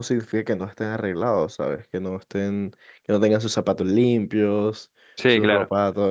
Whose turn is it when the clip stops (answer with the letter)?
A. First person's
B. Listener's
A